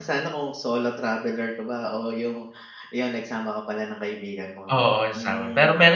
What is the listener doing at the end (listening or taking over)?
taking over